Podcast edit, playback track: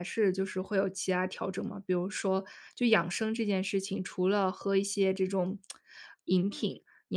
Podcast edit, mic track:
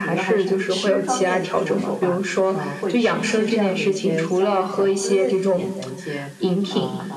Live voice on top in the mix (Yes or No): No